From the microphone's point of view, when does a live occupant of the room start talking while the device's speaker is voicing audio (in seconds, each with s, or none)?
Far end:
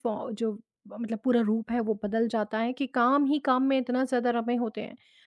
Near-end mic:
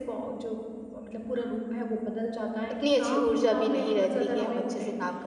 2.7 s